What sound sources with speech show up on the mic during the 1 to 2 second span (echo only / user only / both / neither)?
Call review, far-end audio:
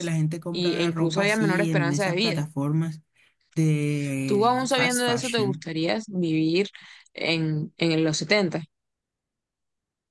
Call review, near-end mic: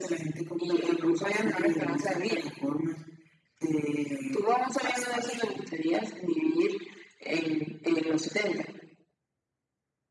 echo only